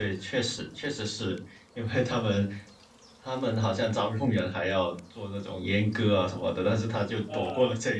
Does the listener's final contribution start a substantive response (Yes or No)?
No